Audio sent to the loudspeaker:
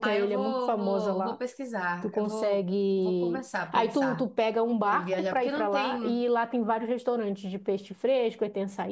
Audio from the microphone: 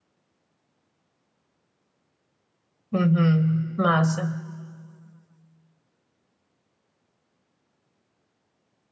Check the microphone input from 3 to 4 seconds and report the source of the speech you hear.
user only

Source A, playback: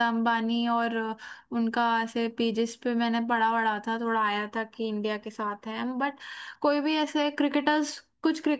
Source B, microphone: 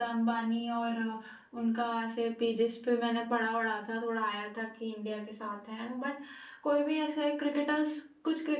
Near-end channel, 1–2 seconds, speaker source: echo only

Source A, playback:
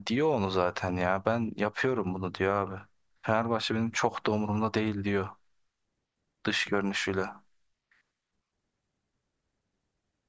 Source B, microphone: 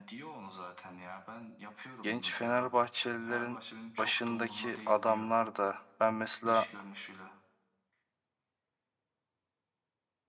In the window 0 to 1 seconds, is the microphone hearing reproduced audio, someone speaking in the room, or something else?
echo only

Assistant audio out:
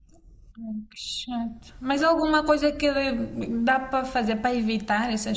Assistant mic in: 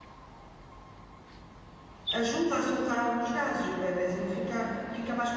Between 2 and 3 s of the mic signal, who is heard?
user only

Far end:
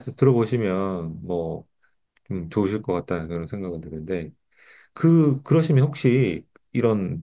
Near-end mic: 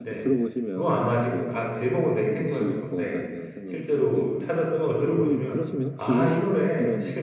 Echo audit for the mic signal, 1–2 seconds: both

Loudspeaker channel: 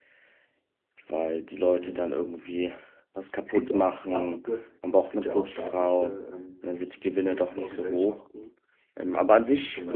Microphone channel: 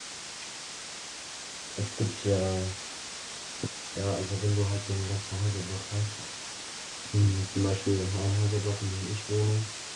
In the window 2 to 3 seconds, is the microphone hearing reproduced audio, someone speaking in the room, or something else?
user only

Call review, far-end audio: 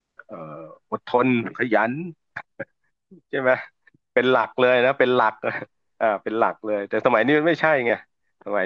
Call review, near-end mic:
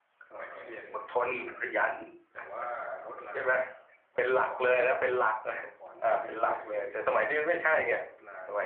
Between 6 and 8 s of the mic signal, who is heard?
both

